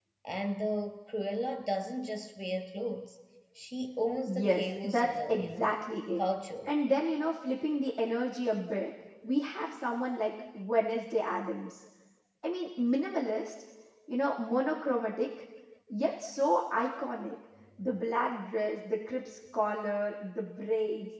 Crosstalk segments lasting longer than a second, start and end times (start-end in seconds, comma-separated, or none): 4.2-5.7